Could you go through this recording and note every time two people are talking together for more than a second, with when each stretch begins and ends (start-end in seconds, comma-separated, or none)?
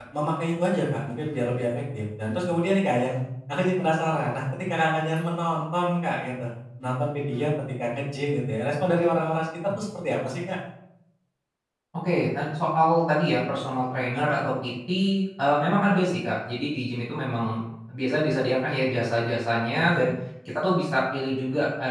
none